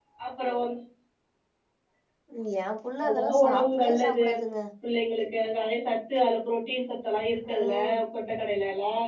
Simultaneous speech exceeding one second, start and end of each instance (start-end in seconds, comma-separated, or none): 3.0-4.2